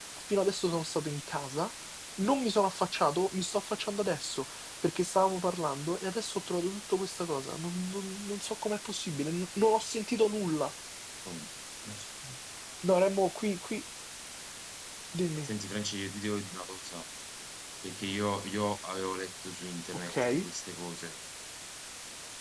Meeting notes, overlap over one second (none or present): none